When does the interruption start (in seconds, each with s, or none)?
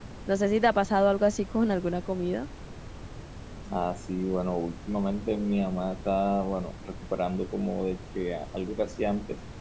none